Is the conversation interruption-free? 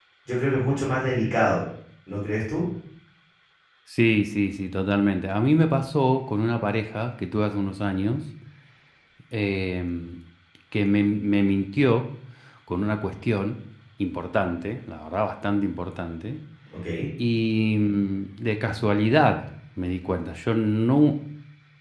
Yes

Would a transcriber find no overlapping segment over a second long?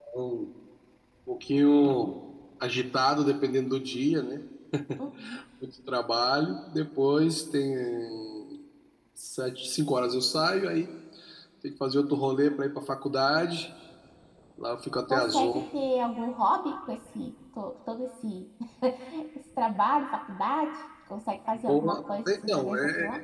No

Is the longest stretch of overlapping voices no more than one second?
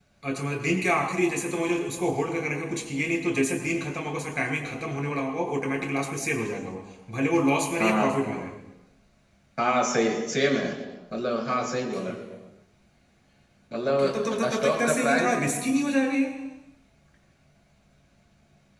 No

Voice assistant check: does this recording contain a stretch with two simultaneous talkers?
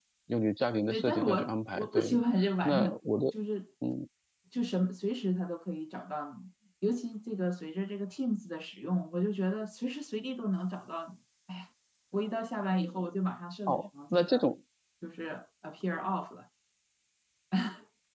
Yes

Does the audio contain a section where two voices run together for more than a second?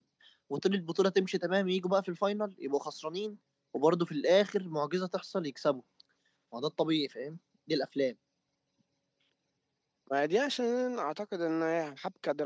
No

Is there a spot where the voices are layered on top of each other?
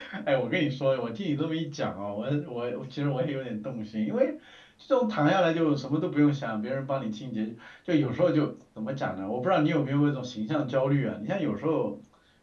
No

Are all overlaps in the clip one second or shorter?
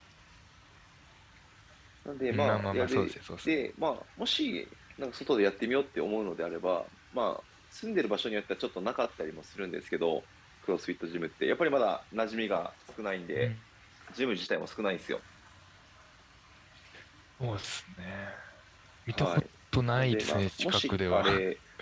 No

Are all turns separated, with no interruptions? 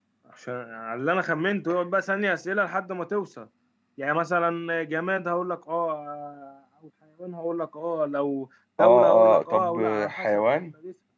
No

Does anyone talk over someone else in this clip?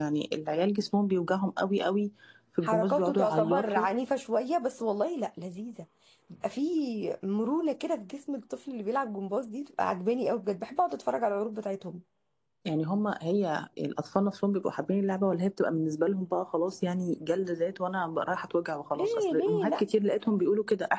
Yes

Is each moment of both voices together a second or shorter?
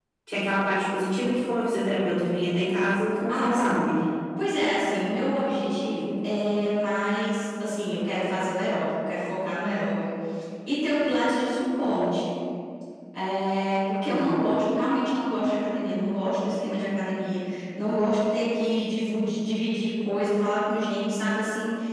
Yes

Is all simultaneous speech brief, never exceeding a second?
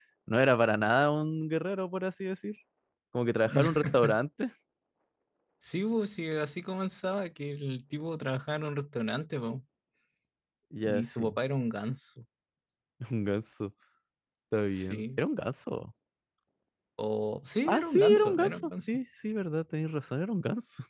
No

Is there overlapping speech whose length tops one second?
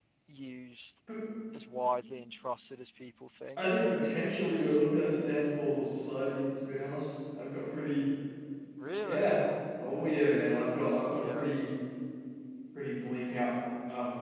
No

